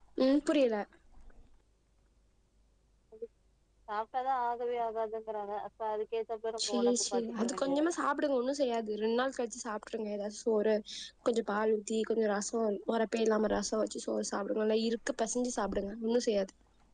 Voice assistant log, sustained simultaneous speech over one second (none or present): present